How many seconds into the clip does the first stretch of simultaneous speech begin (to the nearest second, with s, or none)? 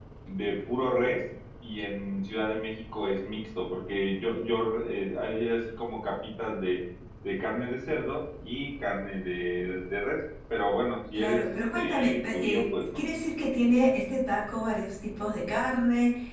11 s